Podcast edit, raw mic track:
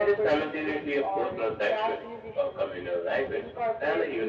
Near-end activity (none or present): none